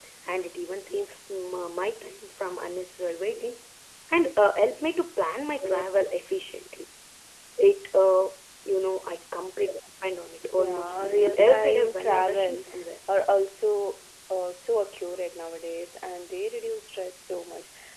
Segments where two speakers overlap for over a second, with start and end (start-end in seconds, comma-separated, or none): 11.4-12.6